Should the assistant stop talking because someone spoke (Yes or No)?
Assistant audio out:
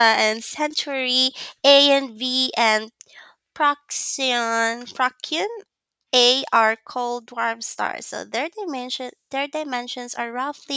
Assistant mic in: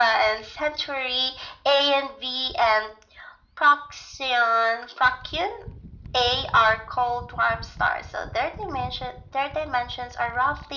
No